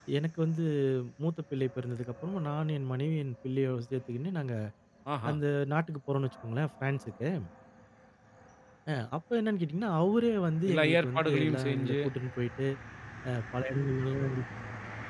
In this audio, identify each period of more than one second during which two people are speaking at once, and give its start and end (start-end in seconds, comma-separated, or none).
10.7-12.0